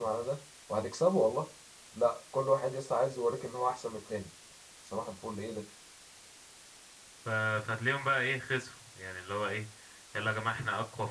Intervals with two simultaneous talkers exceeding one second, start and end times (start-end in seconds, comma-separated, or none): none